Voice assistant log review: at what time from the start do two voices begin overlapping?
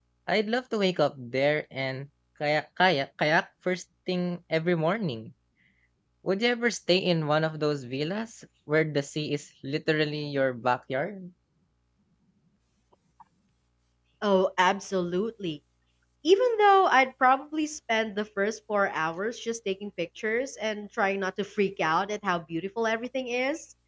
none

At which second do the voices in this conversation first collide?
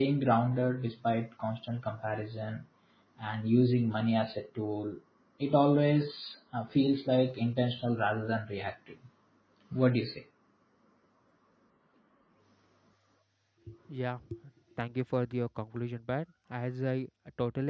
none

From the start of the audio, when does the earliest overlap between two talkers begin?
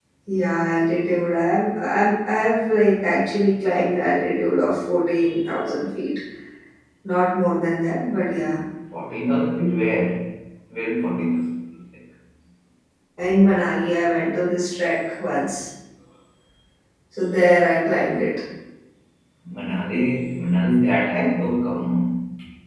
none

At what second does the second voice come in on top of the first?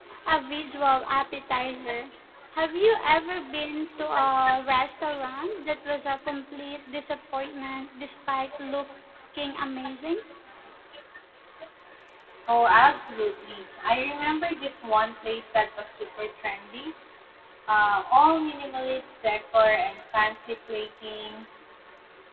none

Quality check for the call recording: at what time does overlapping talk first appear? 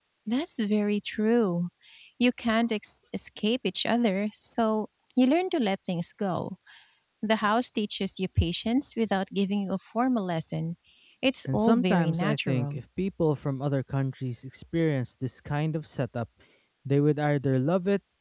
11.5 s

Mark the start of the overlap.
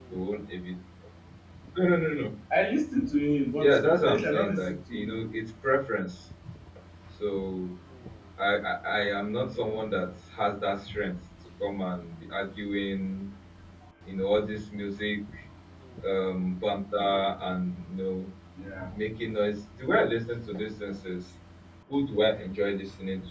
3.6 s

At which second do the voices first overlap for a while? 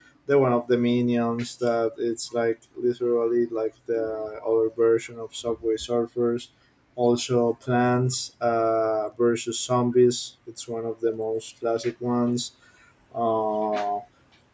none

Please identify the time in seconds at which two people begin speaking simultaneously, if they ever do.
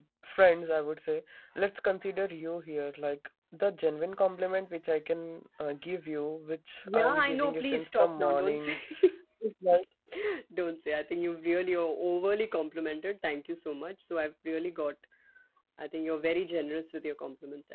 6.8 s

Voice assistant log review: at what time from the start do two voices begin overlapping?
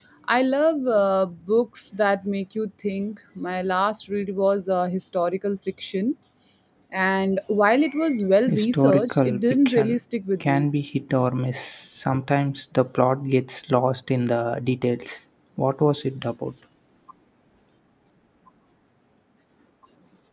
8.5 s

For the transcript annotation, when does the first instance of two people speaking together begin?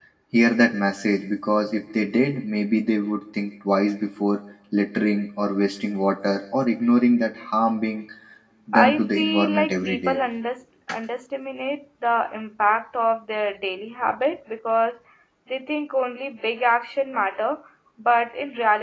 8.7 s

